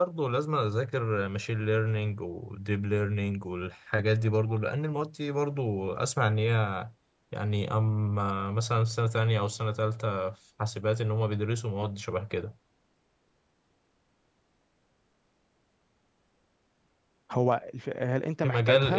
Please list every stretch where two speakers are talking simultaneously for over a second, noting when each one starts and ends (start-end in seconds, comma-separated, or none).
none